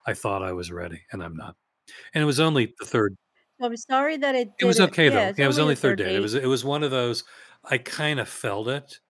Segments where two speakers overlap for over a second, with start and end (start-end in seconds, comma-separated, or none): 4.6-6.3